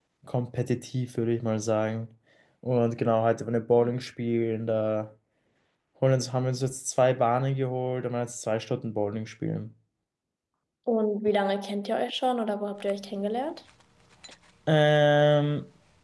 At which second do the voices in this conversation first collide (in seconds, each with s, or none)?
none